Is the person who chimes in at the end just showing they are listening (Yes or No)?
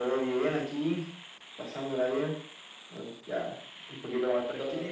No